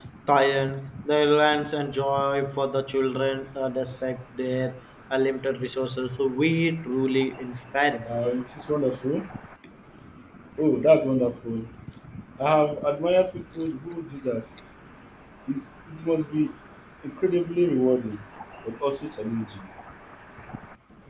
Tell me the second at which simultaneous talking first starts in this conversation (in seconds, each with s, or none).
none